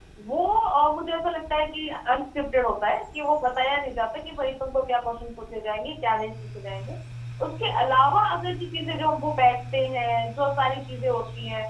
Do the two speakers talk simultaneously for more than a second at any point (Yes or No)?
No